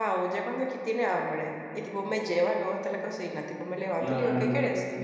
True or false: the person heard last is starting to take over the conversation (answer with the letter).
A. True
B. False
B